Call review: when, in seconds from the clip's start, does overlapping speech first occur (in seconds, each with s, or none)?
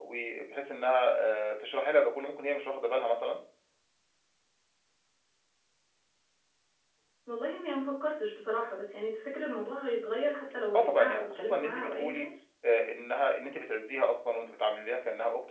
10.7 s